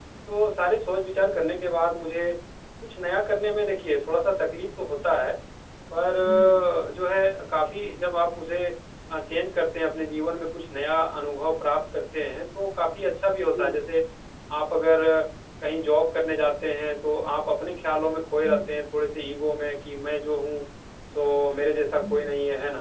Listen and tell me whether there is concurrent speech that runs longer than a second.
No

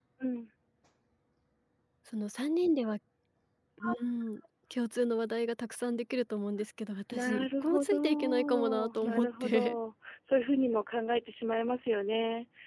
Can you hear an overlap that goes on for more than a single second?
Yes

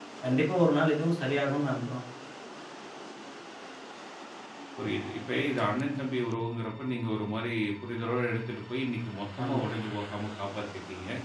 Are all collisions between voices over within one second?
Yes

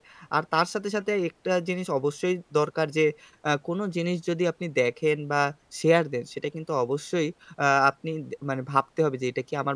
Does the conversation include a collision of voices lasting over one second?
No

